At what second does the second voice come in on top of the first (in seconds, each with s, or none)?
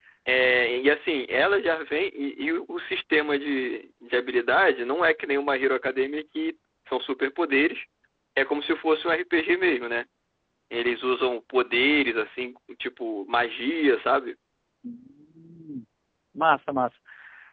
none